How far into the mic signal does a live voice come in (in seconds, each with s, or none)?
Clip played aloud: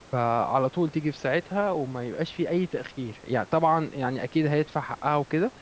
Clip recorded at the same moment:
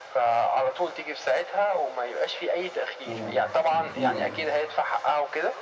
3.0 s